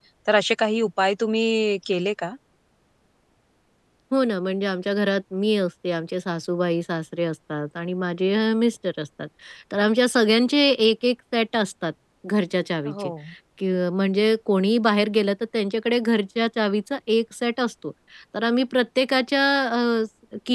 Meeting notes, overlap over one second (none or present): none